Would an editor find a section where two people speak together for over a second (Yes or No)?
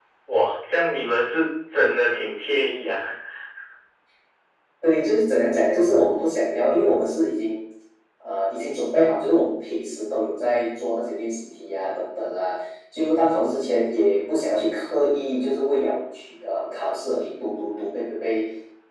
No